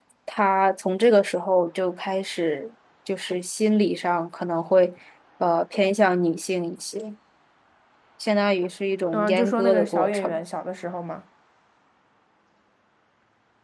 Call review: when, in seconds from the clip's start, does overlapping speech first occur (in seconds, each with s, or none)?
9.1 s